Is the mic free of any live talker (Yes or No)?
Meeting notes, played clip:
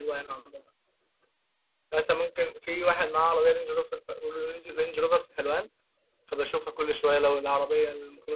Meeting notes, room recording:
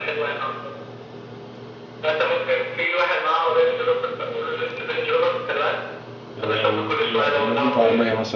No